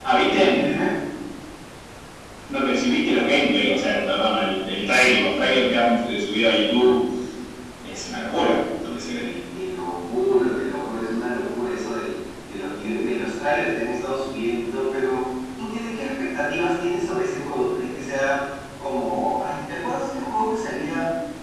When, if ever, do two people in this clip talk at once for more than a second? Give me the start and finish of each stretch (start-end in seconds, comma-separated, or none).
none